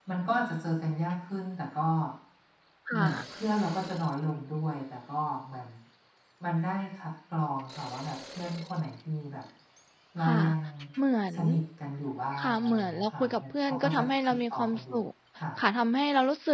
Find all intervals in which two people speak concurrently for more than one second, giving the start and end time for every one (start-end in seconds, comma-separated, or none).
12.4-14.9